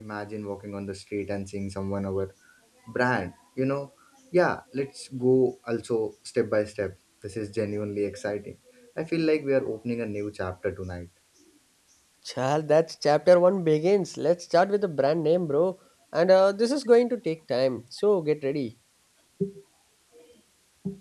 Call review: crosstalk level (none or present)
none